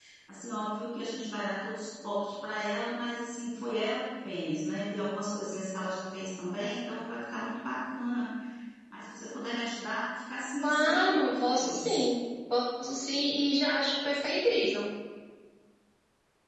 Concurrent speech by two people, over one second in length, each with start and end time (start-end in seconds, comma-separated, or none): 10.6-11.9